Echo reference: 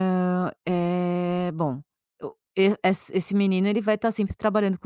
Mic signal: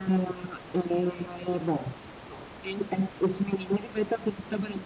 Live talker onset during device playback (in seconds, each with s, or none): none